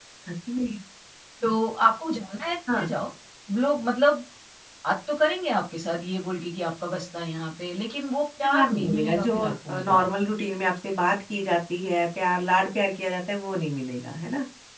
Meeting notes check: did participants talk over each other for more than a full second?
Yes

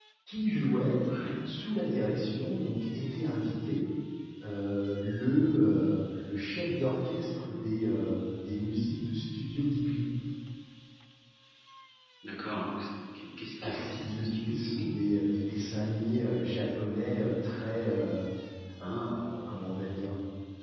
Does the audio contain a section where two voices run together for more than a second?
Yes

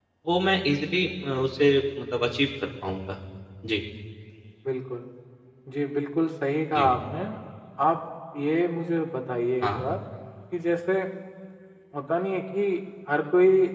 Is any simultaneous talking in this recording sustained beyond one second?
No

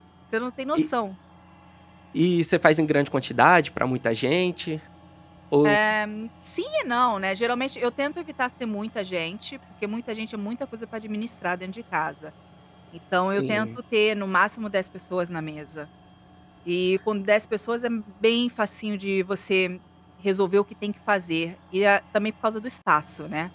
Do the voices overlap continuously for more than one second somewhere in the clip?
No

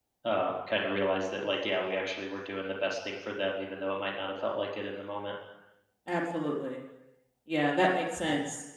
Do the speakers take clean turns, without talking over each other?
Yes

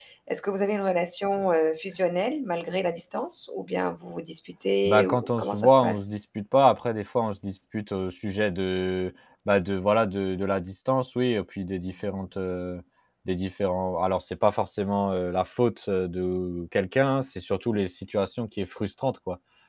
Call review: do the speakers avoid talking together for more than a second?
No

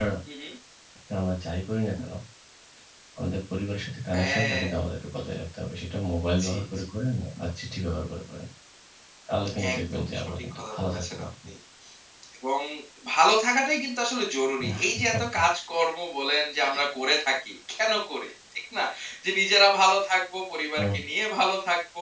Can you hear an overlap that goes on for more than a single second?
Yes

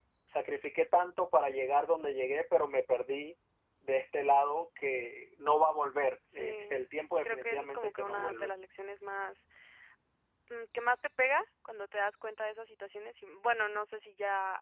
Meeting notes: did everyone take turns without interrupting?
No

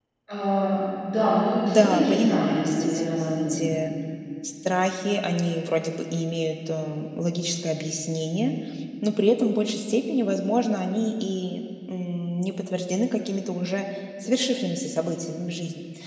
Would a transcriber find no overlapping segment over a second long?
No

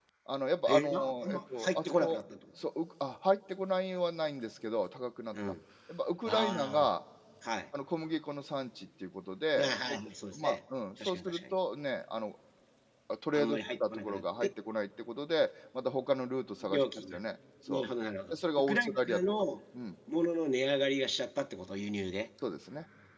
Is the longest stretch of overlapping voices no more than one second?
No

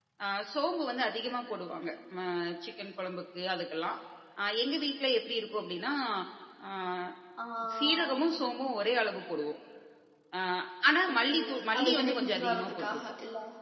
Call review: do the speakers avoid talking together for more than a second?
No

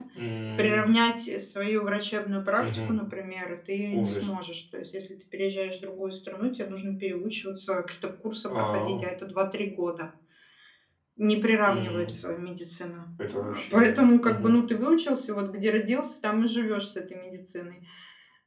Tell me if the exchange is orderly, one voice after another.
No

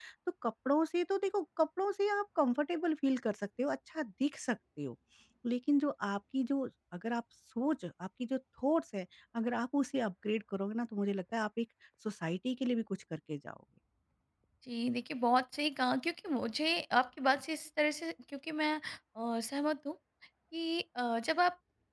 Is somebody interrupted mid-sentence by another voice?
No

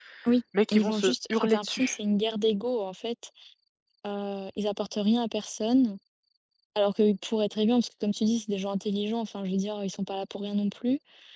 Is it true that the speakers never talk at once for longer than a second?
No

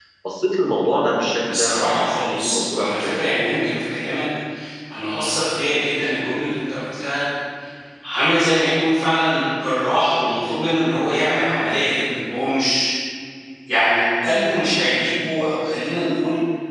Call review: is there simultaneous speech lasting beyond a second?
Yes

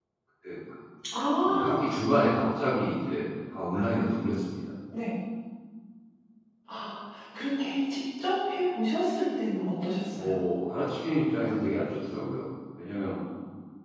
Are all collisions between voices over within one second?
Yes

